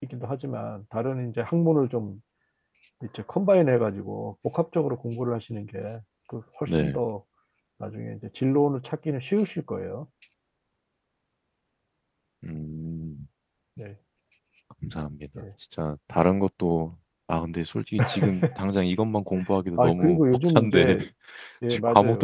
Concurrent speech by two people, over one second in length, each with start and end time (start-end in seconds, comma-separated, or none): 19.8-21.0